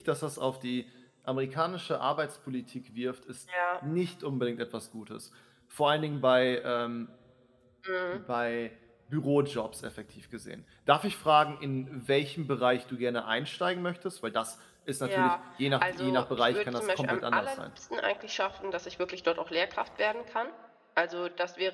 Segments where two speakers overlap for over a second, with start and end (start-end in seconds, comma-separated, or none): 15.8-17.6